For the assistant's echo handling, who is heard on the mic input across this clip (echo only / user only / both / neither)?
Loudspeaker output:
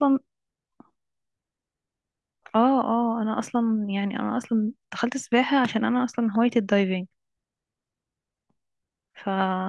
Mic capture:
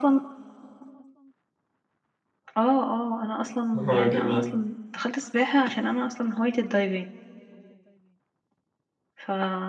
both